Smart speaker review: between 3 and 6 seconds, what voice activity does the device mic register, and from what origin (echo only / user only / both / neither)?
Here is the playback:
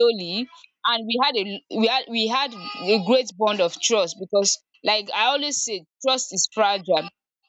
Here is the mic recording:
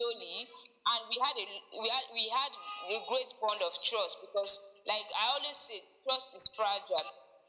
echo only